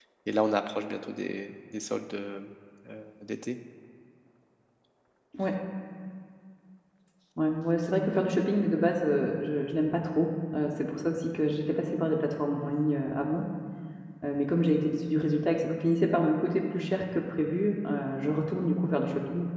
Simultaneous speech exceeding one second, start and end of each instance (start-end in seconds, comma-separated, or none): none